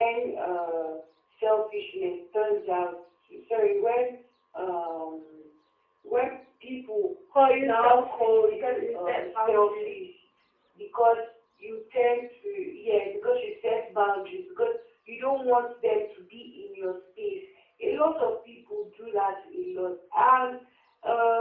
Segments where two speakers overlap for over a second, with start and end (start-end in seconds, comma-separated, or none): 7.6-9.9